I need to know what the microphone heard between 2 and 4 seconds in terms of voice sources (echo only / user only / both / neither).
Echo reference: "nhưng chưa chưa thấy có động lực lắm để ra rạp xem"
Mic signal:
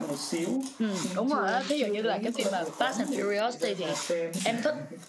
both